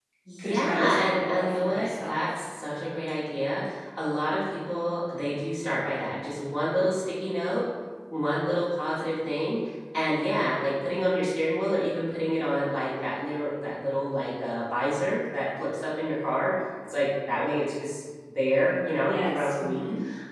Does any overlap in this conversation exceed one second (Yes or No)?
Yes